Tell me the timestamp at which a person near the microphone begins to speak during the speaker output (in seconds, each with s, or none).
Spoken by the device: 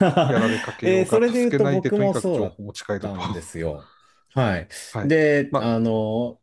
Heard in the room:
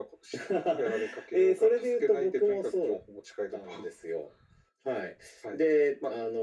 none